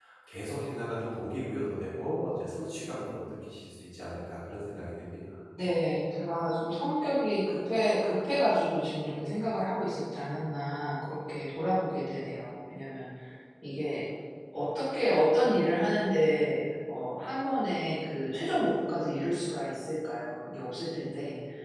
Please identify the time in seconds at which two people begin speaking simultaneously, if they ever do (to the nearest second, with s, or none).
none